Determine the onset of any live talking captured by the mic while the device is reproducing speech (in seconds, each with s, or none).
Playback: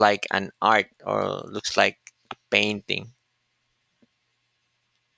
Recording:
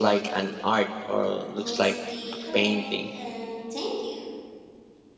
1.6 s